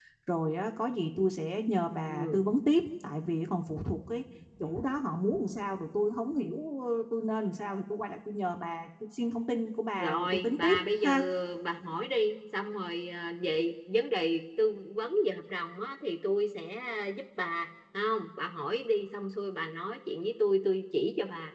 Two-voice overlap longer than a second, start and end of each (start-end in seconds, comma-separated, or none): 10.0-11.2